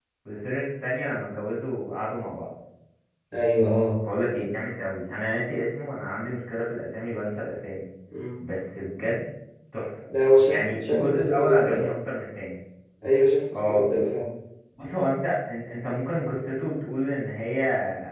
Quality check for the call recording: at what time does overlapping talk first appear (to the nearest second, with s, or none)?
10 s